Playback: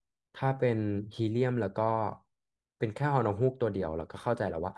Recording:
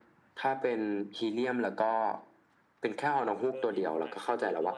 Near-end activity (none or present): present